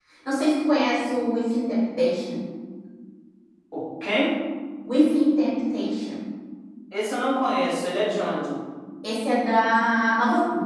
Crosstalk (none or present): none